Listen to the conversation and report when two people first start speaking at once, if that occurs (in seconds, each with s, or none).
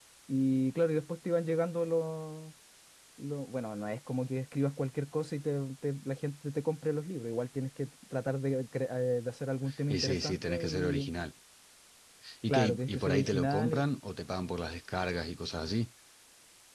9.9 s